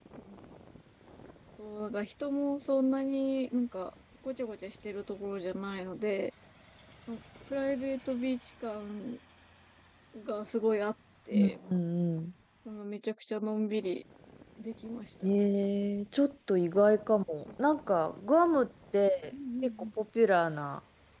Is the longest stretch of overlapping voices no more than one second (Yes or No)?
Yes